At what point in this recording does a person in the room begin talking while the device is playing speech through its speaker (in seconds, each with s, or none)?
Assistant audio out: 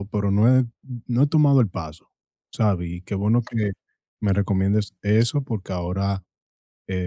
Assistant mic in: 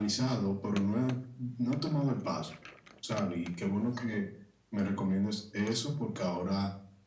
none